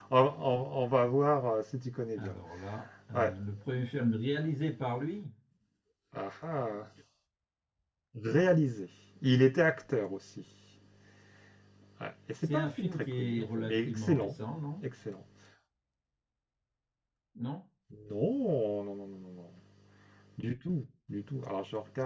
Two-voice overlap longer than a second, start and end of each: 12.4-14.3

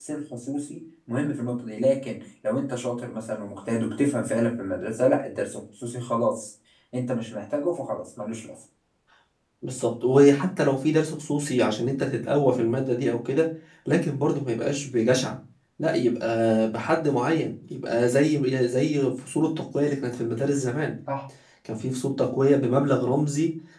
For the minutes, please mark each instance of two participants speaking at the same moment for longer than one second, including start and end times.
none

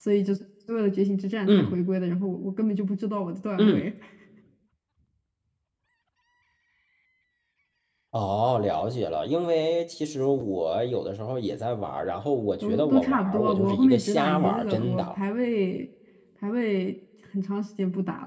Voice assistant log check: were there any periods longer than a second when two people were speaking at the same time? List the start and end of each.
12.6-15.2

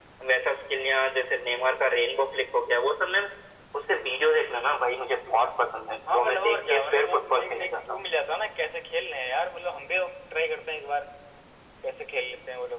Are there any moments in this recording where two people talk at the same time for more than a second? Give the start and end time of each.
6.1-8.0

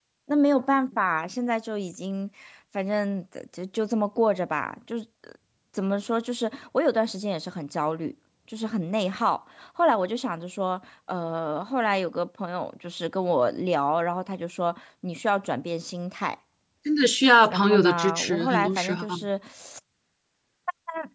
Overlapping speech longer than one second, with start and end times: 17.5-19.0

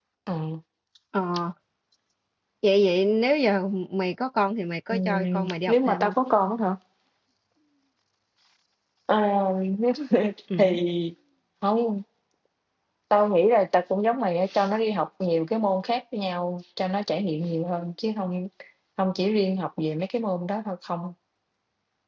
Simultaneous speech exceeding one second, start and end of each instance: 4.9-6.1

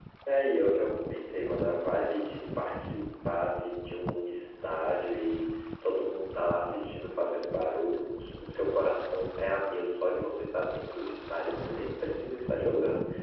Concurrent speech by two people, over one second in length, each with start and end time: none

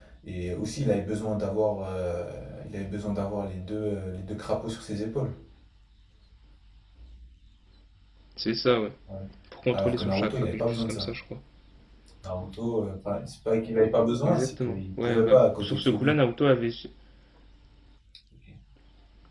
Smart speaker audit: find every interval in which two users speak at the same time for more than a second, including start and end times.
9.7-11.1, 14.2-16.1

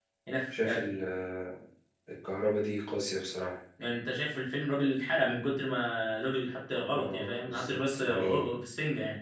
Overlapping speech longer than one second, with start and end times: 6.9-8.5

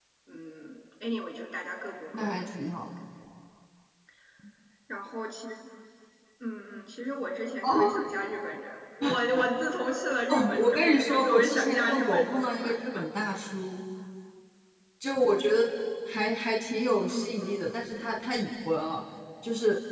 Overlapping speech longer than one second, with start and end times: 10.3-12.7

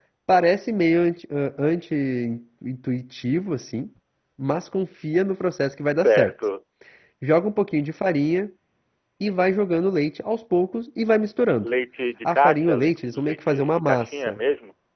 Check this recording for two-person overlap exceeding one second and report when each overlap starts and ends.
12.2-14.4

